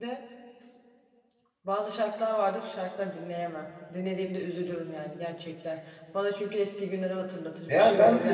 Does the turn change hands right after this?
Yes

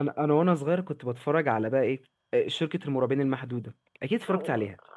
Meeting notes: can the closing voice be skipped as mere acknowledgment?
No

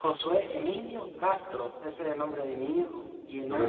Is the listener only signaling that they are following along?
No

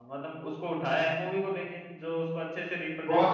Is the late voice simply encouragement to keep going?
No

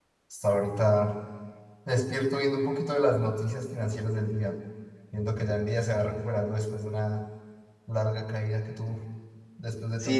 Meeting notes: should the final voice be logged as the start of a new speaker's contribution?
Yes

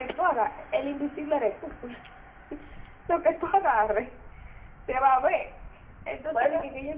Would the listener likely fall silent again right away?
Yes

